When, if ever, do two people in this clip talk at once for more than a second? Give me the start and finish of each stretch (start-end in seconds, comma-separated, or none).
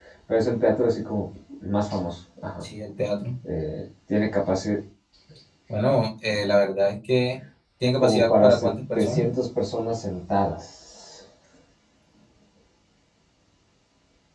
8.0-9.2